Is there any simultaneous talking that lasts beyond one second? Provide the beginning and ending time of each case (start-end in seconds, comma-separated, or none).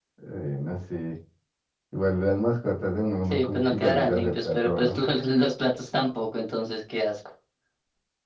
3.3-5.0